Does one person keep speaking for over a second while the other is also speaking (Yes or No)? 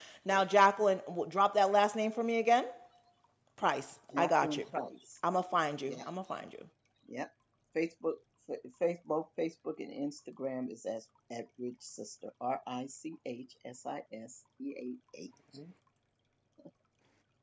No